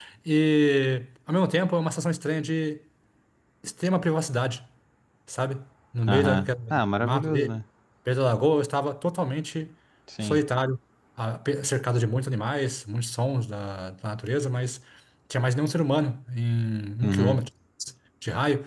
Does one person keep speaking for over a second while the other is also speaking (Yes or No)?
Yes